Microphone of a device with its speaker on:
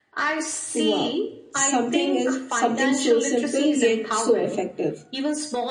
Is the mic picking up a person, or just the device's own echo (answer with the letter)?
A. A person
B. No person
A